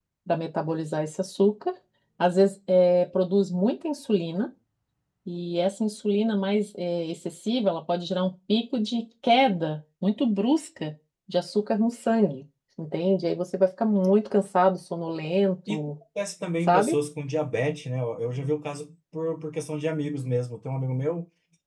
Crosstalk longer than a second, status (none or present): none